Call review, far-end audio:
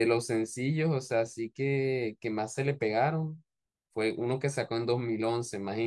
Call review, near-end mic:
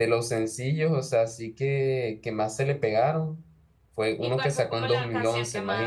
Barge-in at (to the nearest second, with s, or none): 4 s